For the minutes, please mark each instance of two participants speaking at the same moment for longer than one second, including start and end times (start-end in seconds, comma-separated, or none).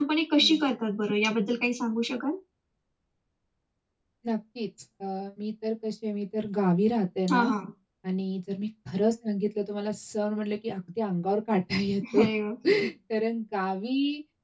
none